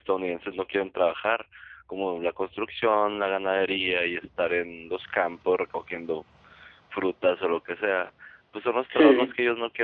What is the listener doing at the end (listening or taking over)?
listening